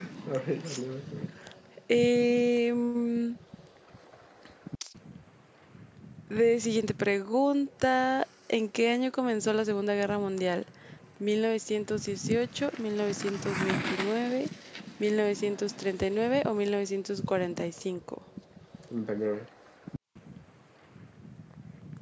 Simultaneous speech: No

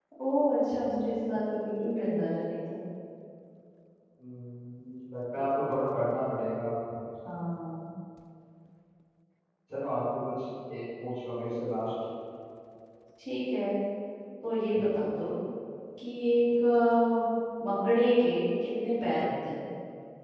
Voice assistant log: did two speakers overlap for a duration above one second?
No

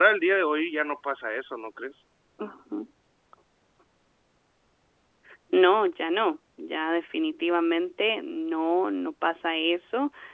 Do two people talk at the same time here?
No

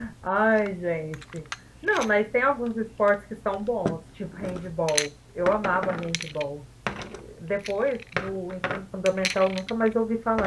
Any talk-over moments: No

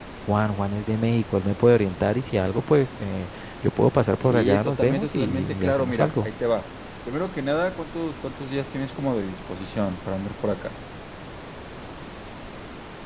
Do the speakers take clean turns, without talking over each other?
No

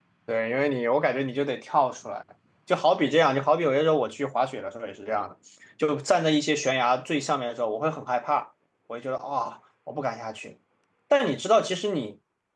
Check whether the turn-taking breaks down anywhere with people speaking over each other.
No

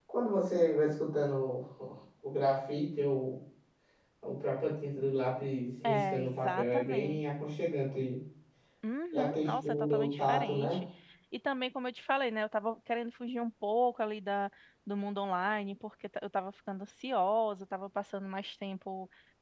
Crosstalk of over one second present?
Yes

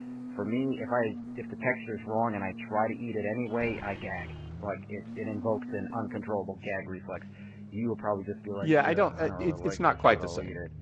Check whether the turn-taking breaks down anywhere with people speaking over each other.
Yes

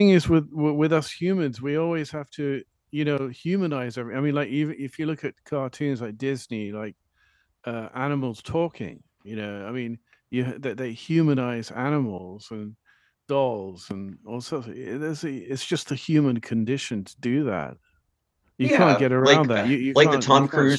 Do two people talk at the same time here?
Yes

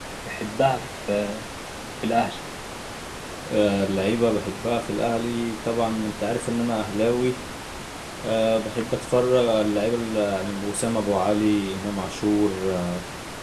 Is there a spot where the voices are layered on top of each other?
No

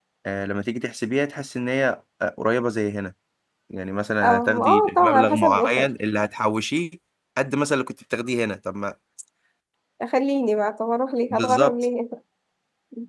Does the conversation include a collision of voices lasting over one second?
Yes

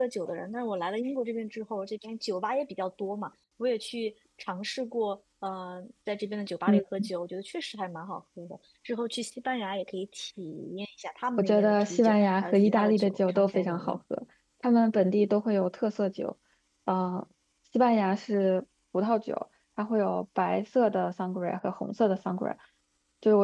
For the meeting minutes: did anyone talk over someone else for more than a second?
Yes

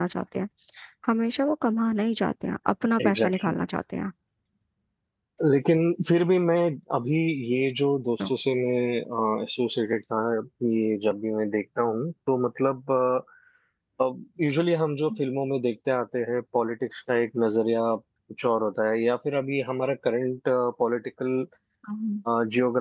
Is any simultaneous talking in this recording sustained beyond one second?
No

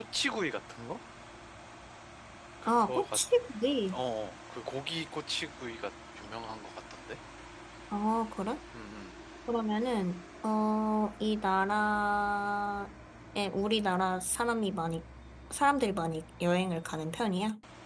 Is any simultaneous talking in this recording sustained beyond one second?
No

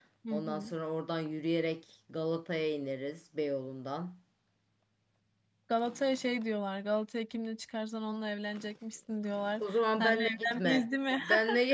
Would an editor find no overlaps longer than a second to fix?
No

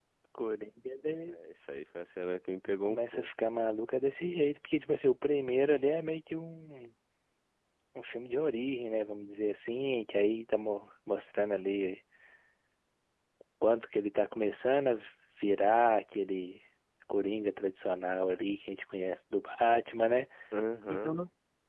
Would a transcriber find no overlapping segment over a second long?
Yes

